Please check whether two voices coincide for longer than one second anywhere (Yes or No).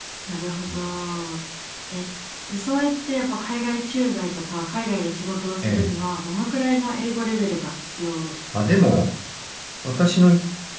No